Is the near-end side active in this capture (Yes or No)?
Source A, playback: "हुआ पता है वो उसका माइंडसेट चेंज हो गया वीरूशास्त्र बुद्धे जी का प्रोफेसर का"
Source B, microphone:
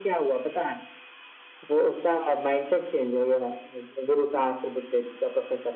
No